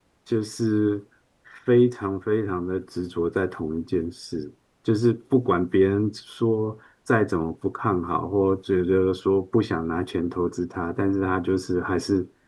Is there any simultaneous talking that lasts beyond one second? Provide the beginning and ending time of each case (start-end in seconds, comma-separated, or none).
none